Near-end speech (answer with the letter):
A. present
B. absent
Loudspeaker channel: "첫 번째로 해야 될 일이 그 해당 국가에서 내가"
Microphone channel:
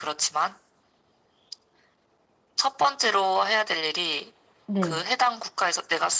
A